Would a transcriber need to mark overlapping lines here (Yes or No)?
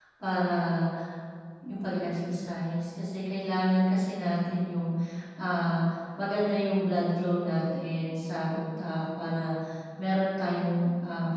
No